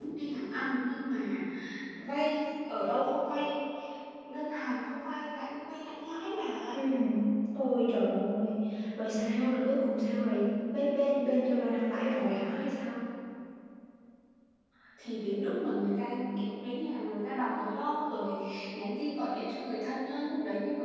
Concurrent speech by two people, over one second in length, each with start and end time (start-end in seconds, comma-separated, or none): none